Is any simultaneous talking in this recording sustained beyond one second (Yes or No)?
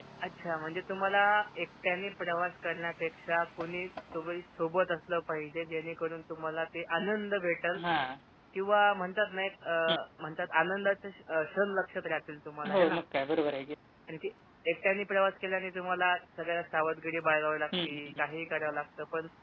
No